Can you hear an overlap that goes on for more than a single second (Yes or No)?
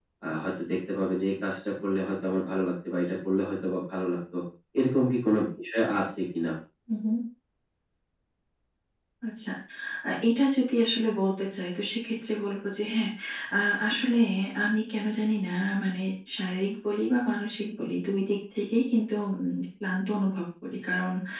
No